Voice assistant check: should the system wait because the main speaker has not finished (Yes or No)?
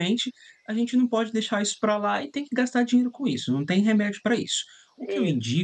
Yes